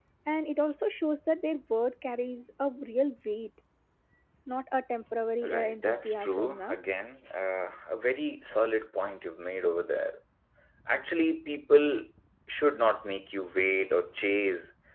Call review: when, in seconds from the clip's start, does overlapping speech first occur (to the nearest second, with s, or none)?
5 s